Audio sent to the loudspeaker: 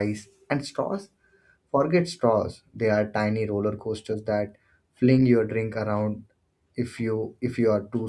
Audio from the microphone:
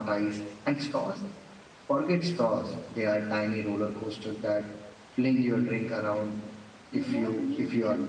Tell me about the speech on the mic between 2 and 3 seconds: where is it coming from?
echo only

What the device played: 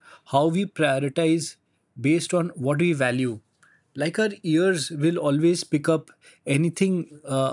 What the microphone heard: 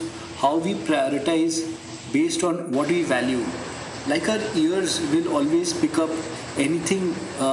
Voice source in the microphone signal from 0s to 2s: echo only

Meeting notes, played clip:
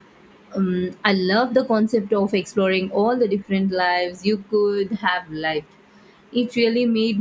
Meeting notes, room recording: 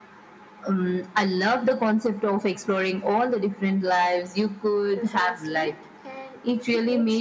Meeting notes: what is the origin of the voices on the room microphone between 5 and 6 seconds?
both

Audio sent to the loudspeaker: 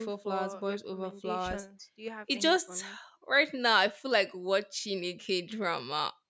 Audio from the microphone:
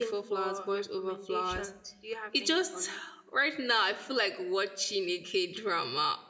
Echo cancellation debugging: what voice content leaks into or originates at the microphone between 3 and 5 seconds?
echo only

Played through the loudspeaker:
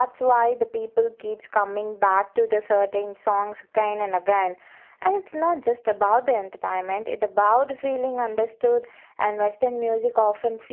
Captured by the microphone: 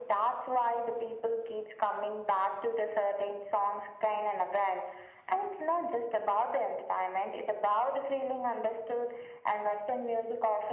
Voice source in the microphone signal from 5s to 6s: echo only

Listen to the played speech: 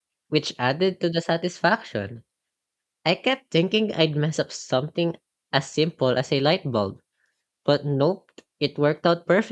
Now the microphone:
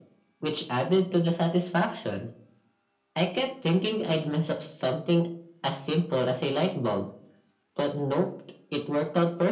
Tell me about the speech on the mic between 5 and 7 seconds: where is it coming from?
echo only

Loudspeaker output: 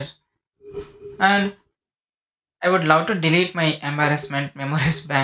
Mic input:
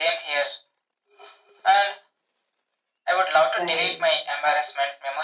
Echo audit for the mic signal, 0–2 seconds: echo only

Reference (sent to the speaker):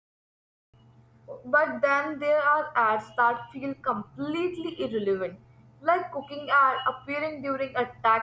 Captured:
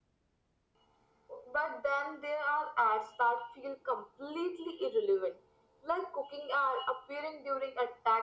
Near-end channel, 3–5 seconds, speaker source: echo only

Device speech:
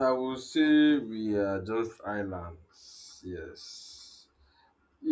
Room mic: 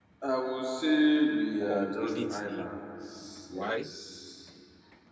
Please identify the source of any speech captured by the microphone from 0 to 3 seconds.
both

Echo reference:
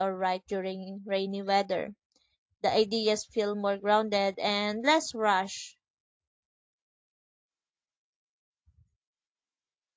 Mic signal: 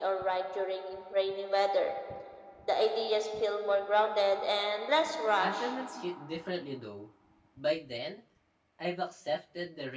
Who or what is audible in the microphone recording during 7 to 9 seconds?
user only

